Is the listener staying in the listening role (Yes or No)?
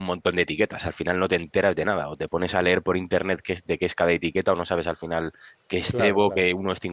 Yes